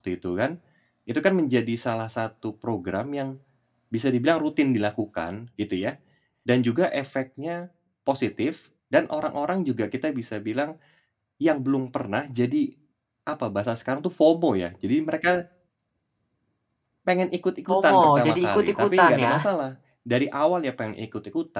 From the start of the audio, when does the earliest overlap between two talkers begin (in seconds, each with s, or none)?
17.7 s